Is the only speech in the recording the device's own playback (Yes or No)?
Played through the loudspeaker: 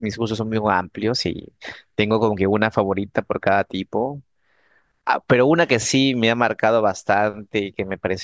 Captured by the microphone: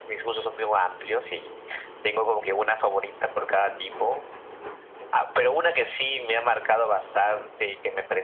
Yes